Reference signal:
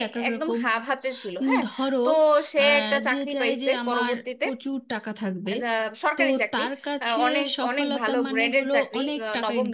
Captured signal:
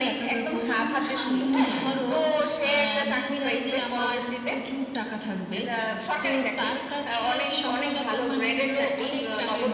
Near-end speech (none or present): present